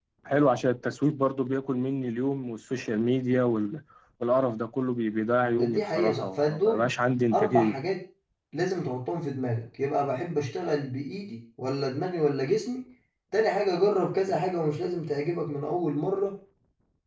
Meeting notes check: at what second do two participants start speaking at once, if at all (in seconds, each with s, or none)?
5.6 s